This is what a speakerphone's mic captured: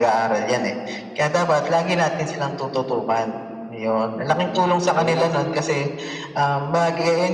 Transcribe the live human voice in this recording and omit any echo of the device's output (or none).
Hmm, ayun 'no.